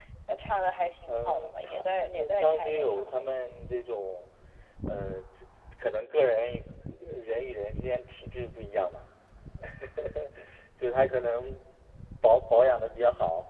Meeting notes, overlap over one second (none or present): present